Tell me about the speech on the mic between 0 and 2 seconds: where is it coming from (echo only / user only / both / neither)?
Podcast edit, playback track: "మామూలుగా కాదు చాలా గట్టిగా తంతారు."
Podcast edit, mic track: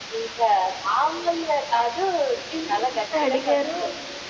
echo only